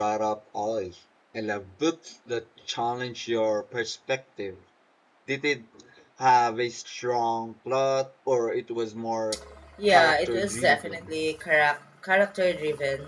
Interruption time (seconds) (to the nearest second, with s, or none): 10 s